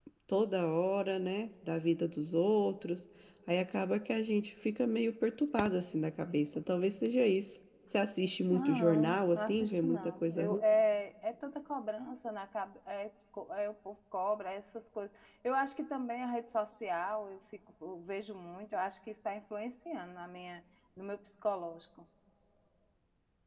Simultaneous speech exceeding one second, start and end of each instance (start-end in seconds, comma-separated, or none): 8.5-10.6